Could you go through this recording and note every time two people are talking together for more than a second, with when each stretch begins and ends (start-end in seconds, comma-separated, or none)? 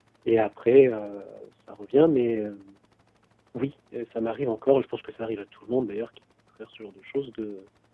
none